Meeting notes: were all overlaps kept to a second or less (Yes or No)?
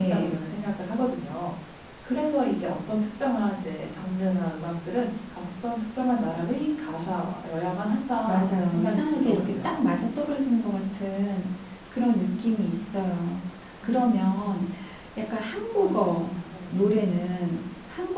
No